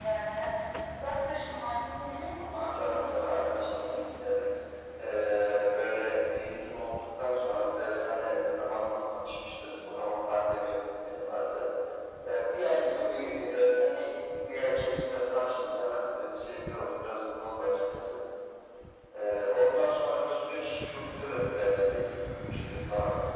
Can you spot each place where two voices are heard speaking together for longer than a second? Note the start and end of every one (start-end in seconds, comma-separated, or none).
2.7-4.0